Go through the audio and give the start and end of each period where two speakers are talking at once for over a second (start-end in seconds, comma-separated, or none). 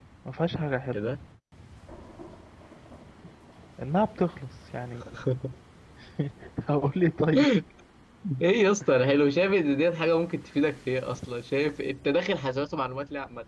none